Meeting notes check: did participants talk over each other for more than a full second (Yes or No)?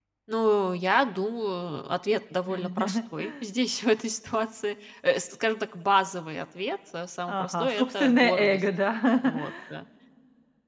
Yes